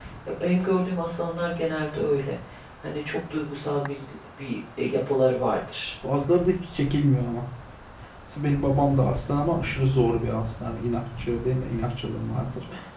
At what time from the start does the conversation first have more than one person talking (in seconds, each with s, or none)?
none